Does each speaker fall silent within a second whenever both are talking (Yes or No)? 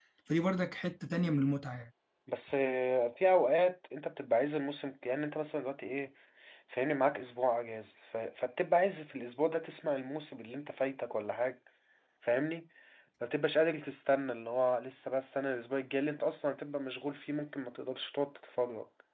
Yes